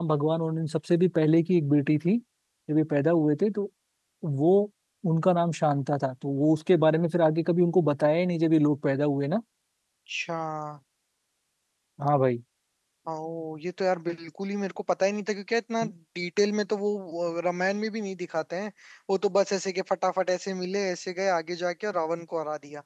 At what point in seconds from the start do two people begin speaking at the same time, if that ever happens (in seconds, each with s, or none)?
none